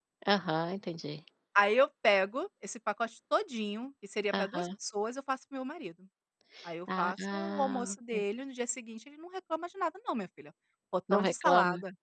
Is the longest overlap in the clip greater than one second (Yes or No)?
Yes